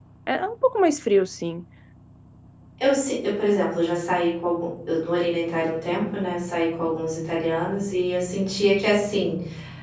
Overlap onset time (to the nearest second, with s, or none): none